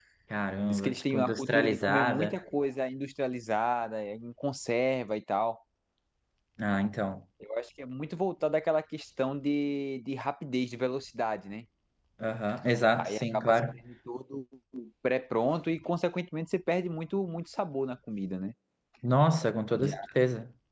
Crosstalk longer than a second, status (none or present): present